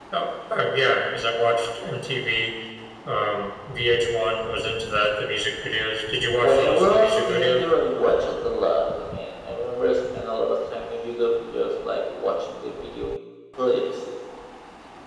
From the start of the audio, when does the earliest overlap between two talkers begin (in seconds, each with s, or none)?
6.4 s